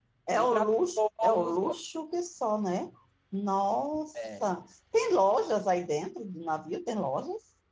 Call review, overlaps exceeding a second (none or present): present